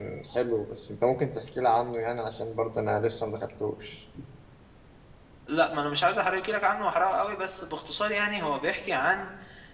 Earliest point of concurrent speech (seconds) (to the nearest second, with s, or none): none